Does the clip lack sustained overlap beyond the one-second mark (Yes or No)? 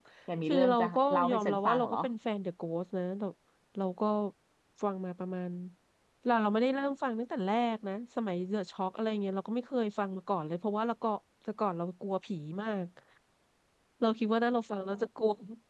No